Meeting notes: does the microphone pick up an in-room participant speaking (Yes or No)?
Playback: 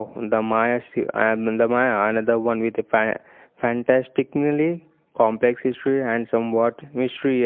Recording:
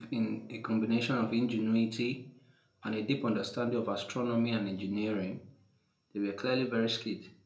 Yes